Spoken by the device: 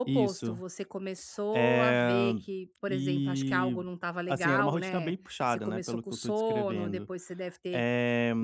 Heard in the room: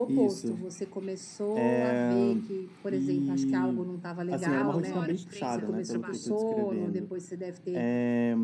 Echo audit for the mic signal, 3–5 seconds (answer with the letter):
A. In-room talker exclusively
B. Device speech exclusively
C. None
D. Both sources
D